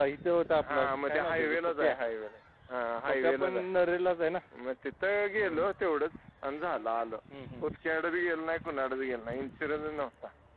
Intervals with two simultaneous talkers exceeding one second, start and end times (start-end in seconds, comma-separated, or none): 0.7-1.9